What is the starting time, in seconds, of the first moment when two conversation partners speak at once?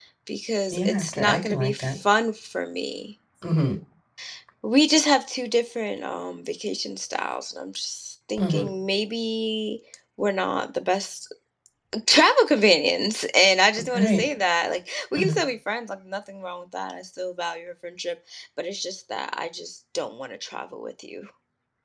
0.7 s

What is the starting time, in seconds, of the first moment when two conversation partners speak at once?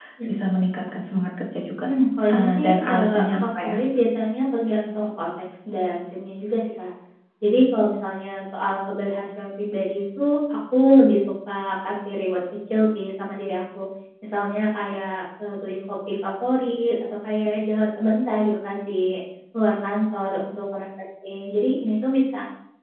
2.3 s

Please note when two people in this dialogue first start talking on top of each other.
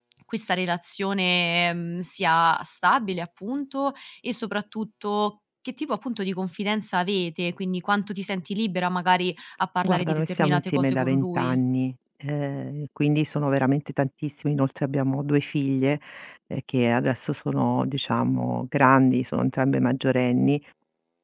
9.8 s

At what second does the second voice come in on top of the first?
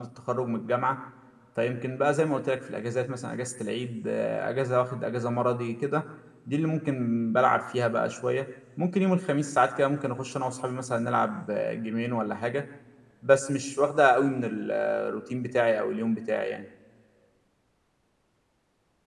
none

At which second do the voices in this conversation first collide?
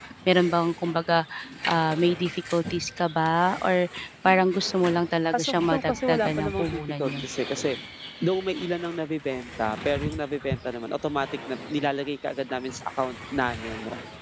5.3 s

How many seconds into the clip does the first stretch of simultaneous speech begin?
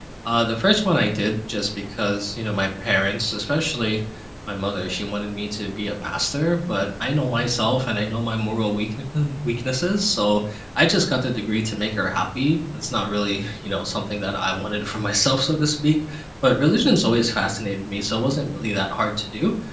none

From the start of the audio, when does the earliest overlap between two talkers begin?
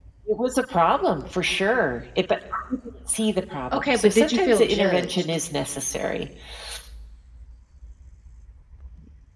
3.7 s

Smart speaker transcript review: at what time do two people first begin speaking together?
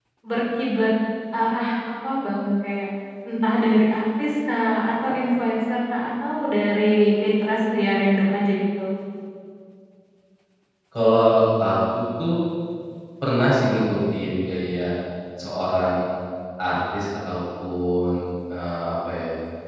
none

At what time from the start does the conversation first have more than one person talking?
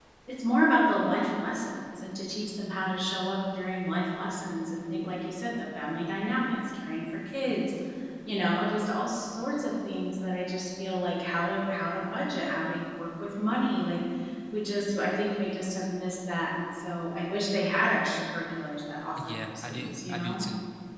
19.2 s

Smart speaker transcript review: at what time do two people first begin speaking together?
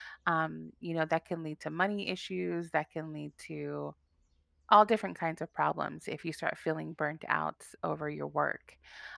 none

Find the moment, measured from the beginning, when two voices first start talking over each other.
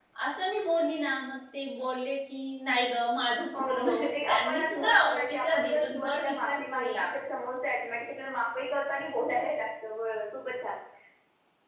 3.5 s

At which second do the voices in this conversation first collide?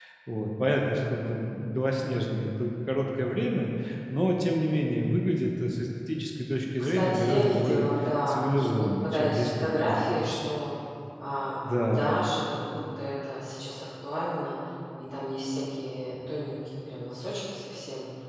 6.8 s

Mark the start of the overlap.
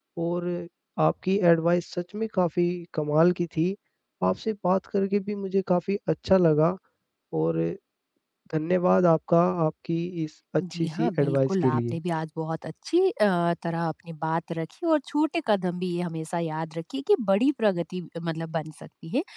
10.6 s

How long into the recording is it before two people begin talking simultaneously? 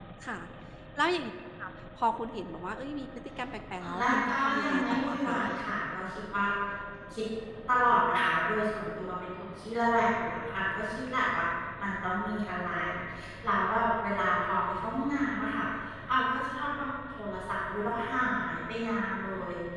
3.8 s

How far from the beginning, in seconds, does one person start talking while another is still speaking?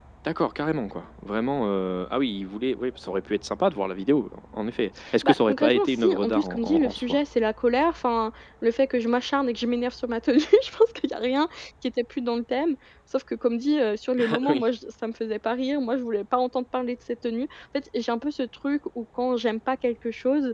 5.2 s

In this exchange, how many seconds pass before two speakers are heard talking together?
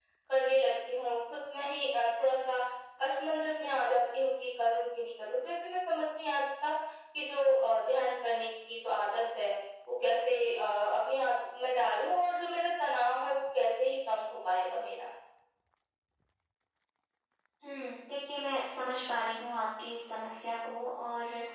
none

